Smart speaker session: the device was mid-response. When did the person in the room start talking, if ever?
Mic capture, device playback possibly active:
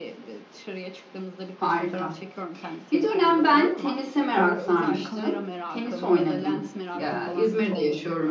1.5 s

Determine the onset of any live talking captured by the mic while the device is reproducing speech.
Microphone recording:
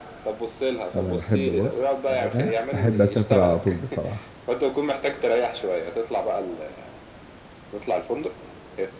0.9 s

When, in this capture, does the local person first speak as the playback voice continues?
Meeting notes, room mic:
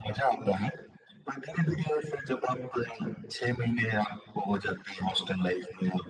none

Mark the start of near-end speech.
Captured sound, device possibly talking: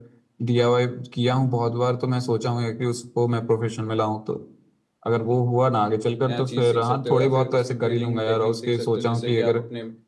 6.2 s

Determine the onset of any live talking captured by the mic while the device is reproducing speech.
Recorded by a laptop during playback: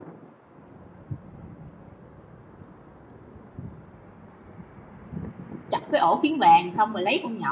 5.7 s

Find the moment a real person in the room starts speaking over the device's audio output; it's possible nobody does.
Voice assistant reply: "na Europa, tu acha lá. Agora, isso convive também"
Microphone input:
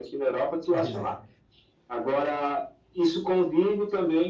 0.7 s

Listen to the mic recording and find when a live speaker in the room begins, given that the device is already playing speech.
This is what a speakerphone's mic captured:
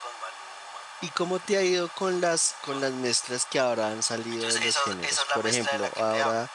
1.0 s

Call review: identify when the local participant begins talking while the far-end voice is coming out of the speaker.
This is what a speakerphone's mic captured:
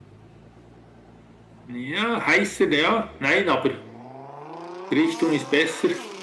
none

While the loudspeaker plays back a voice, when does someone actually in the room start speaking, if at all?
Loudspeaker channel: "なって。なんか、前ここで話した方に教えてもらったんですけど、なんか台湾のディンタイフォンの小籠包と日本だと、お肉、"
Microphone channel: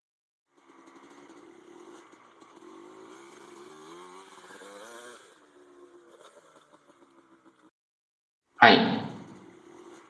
8.6 s

